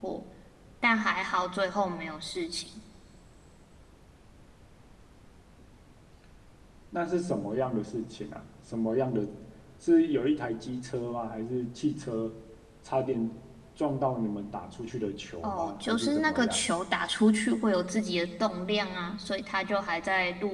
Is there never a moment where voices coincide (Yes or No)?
No